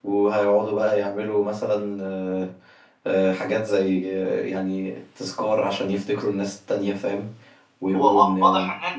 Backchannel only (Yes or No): No